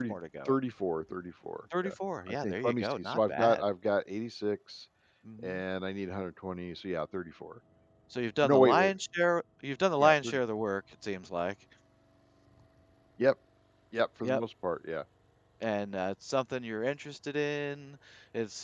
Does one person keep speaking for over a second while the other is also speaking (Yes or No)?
Yes